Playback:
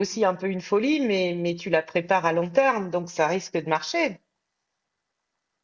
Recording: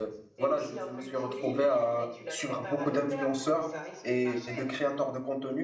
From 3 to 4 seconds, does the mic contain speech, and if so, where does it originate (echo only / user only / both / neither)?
both